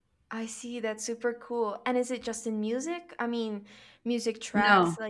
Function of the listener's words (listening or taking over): listening